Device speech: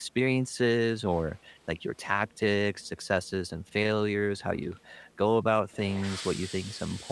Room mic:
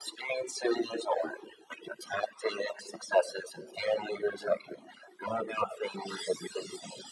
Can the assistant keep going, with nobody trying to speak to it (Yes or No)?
Yes